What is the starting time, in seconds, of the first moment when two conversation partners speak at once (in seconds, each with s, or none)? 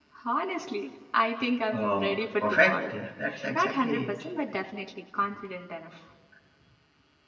1.7 s